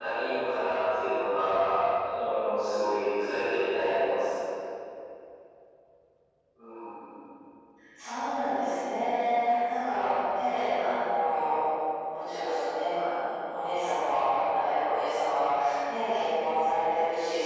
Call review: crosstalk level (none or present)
none